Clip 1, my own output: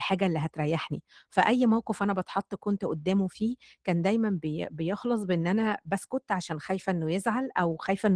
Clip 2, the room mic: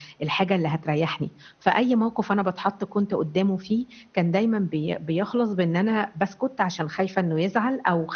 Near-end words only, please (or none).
none